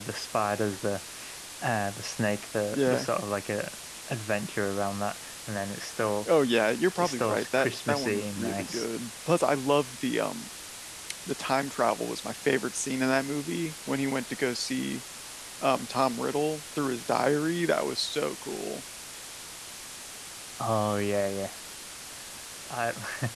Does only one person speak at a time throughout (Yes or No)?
No